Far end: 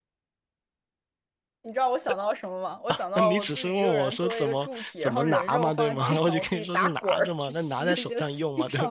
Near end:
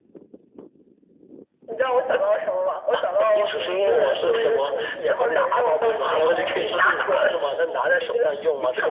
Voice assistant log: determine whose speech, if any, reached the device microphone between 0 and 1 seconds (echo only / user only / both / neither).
neither